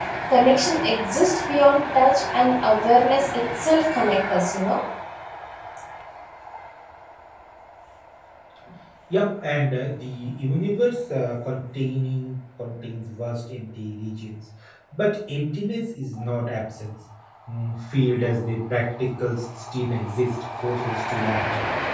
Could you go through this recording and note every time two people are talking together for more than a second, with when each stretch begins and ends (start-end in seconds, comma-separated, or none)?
none